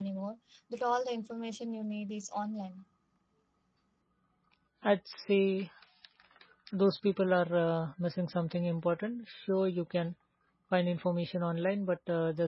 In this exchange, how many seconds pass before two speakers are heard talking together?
none

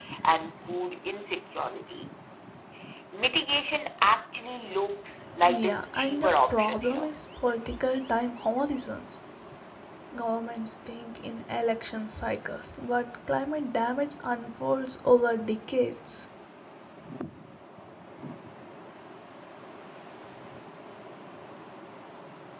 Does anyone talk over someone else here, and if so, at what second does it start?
5.4 s

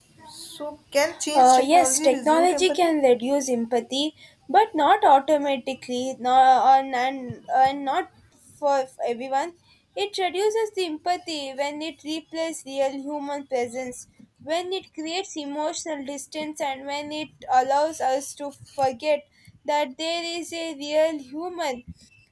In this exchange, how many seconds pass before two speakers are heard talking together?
1.4 s

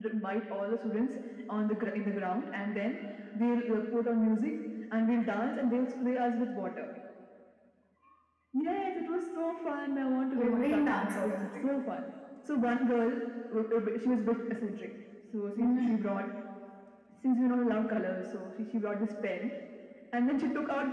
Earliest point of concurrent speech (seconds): 10.4 s

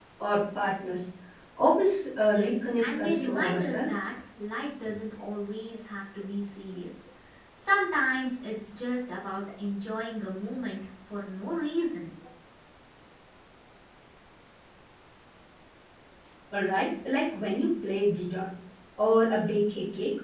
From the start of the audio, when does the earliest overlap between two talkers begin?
2.3 s

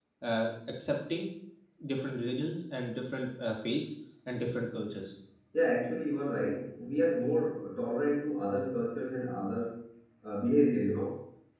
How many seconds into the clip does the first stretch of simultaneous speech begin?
none

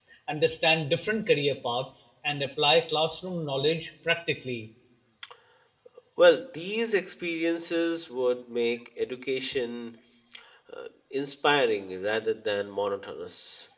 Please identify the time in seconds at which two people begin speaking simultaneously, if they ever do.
none

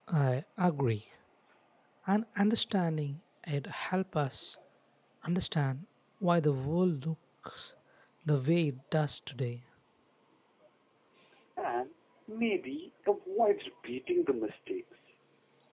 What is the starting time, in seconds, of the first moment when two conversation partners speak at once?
none

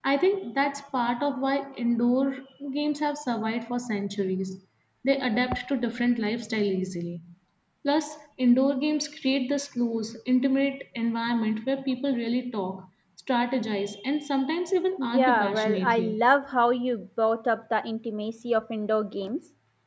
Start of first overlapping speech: 15.0 s

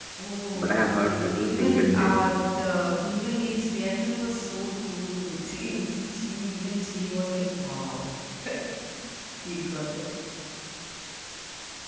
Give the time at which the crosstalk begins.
0.6 s

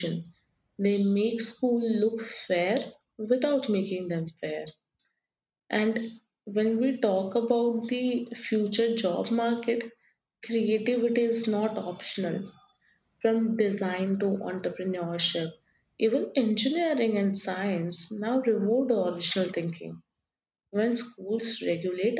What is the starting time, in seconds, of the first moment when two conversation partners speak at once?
none

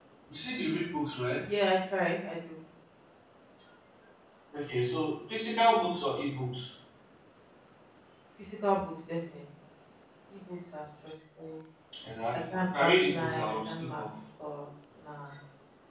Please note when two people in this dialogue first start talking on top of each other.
12.3 s

